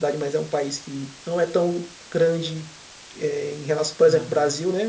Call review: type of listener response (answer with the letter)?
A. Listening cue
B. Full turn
A